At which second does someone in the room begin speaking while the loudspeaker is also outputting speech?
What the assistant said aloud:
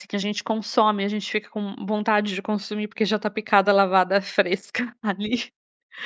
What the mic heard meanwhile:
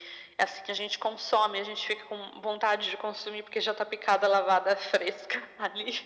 none

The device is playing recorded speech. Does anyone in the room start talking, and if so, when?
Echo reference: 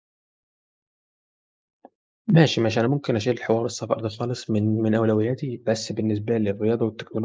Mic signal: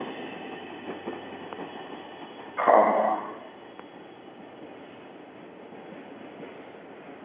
2.6 s

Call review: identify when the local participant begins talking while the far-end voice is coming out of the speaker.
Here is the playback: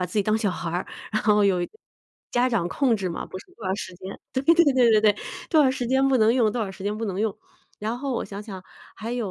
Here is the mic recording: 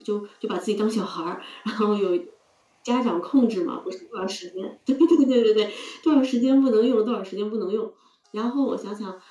none

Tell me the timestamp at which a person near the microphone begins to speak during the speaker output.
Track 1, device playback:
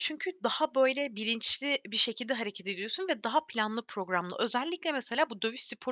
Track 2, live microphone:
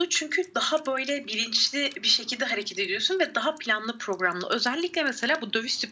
none

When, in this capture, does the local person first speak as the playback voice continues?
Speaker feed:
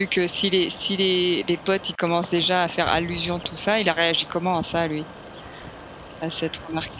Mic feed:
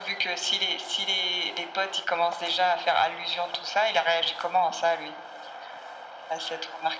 none

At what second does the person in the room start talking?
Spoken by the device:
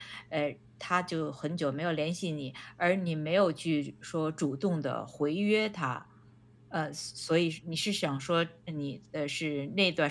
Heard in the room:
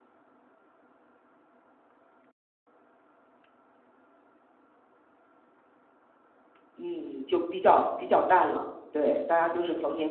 6.7 s

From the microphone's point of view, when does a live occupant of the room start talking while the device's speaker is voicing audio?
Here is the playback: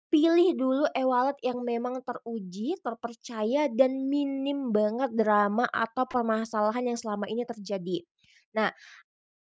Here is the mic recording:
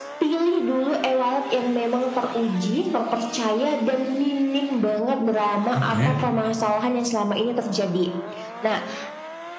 5.7 s

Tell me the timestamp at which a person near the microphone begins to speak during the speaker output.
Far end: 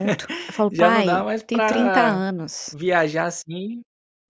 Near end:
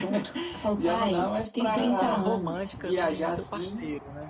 1.6 s

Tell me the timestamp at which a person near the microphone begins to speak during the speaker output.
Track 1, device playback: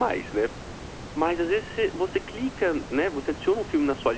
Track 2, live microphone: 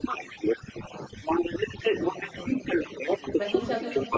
1.8 s

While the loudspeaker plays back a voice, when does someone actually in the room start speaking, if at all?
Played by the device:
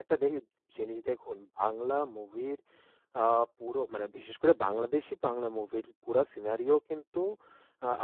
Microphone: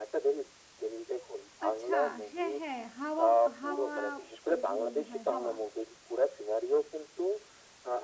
1.7 s

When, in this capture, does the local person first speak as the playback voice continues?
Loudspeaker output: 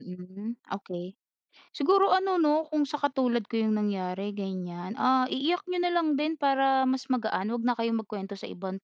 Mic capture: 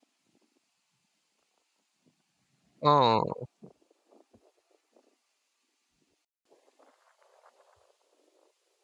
2.8 s

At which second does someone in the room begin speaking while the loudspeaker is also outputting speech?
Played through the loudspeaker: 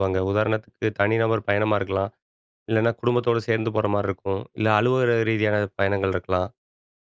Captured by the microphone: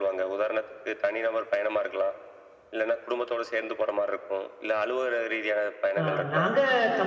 6.0 s

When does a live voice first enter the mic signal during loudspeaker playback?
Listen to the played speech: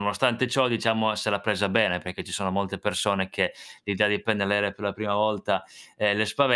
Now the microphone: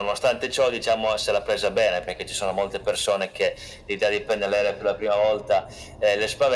none

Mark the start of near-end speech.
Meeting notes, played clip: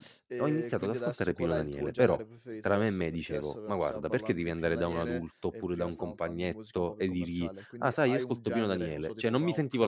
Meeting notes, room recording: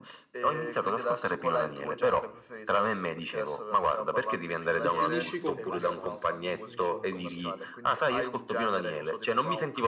4.8 s

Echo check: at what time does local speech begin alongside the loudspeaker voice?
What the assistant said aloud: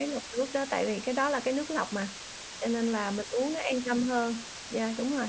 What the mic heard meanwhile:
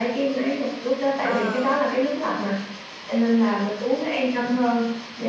1.2 s

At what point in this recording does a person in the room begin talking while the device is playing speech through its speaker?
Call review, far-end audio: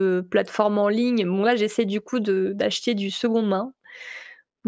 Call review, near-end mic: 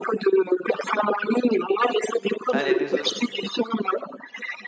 2.5 s

